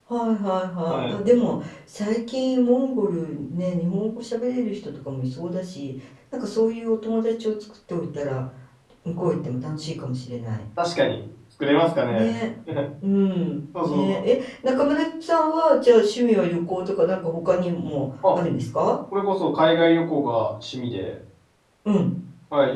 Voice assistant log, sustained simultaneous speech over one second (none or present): none